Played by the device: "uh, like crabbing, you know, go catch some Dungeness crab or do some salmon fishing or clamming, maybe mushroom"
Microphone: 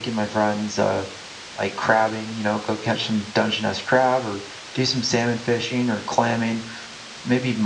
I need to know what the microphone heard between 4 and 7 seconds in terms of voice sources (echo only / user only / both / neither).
echo only